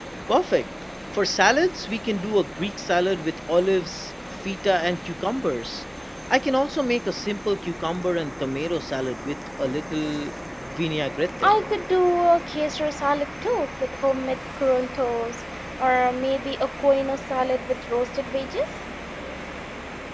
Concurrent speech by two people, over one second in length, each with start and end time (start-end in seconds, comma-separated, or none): none